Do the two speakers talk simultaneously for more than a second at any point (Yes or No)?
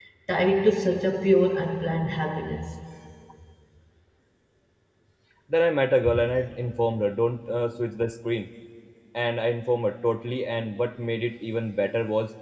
No